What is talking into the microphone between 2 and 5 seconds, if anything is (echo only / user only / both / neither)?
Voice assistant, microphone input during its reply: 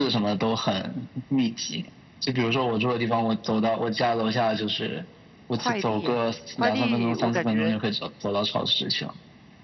echo only